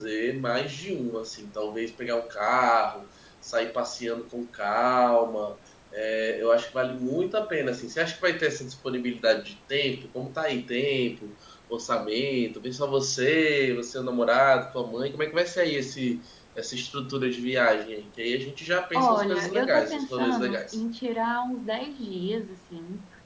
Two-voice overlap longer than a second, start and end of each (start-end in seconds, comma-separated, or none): 18.9-20.8